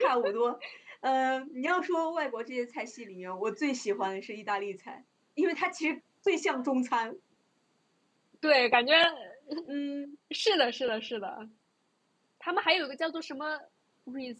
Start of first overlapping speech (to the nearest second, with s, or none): none